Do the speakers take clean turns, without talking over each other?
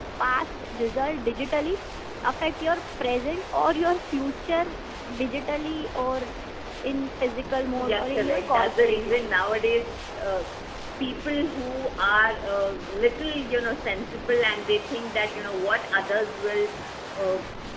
No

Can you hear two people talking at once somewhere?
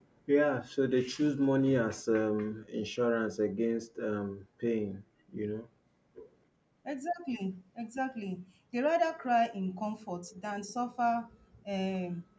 No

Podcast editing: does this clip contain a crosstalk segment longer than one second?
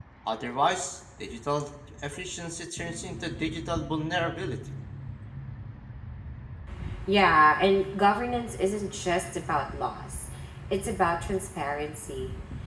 No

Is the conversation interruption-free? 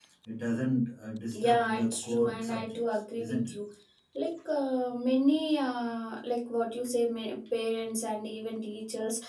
No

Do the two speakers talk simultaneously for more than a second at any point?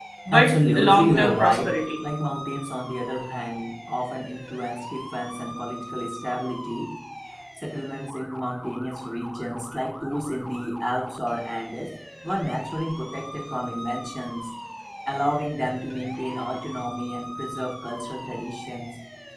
Yes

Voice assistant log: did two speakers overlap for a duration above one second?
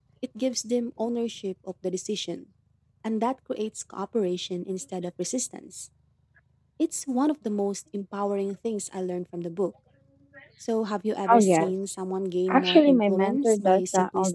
Yes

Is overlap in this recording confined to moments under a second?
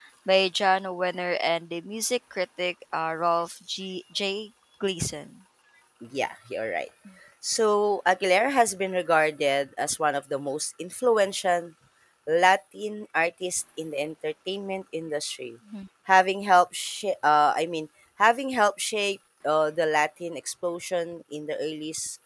Yes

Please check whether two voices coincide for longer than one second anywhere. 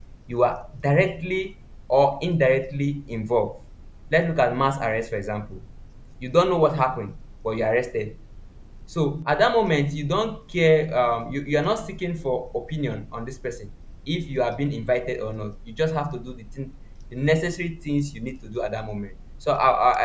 No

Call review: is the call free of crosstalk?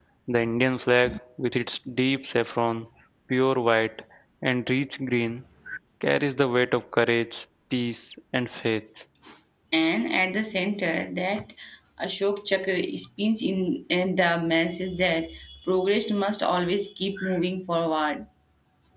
Yes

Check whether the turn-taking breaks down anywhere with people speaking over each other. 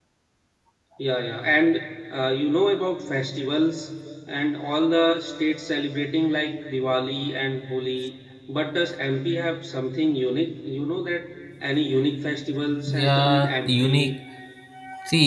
Yes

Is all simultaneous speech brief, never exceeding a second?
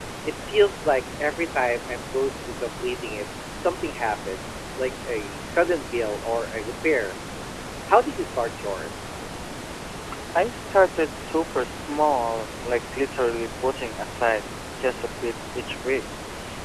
Yes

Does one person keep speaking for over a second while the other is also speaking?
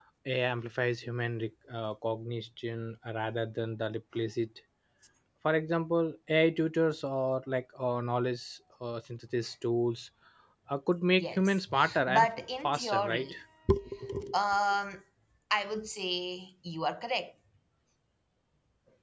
Yes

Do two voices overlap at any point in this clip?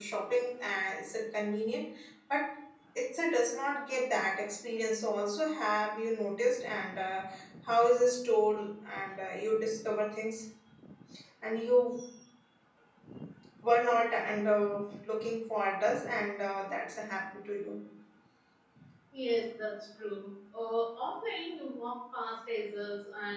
No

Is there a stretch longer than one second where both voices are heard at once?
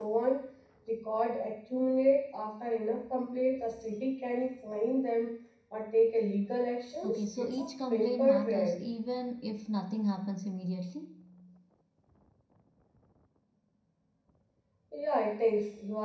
Yes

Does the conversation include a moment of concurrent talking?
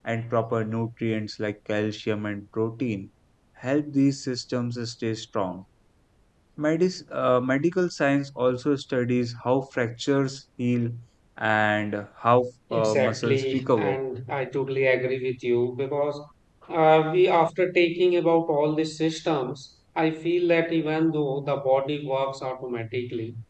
Yes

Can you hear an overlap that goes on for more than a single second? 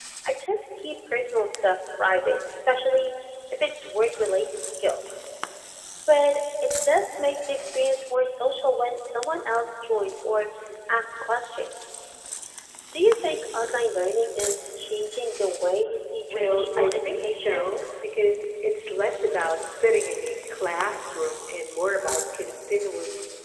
Yes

